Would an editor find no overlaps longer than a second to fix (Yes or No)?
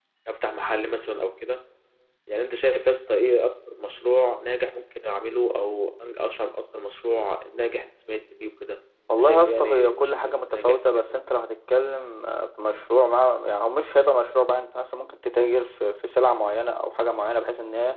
No